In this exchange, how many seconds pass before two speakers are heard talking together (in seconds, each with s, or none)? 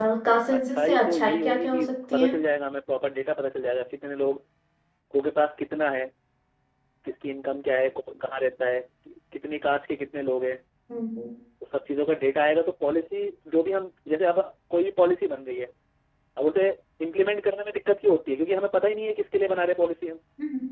0.5 s